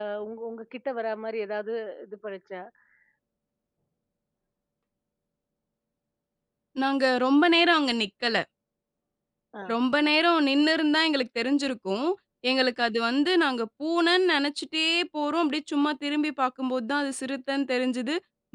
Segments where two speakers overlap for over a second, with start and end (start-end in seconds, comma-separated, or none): none